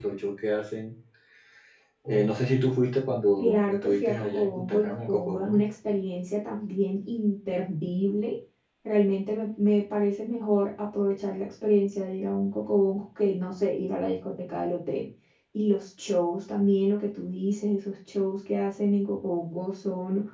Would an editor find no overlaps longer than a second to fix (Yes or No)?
No